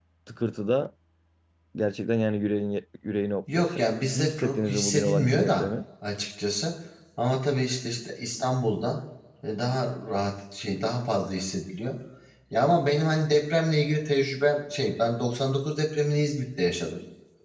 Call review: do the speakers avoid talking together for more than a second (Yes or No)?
No